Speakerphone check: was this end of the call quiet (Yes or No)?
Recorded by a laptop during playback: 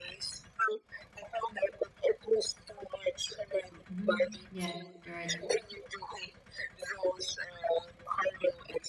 No